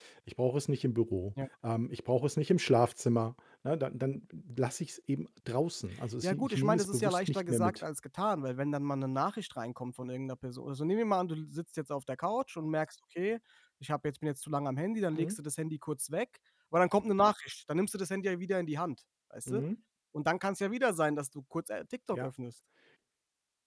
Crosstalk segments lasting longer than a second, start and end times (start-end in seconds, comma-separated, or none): 6.2-7.8